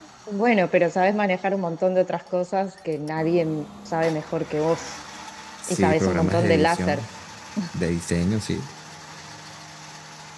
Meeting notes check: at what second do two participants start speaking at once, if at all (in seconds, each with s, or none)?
5.7 s